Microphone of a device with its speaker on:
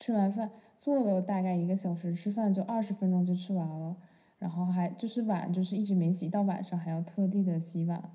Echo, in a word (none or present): present